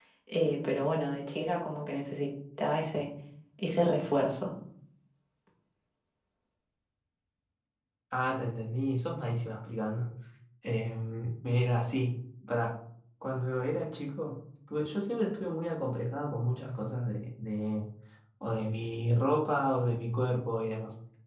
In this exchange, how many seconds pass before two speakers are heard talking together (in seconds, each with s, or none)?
none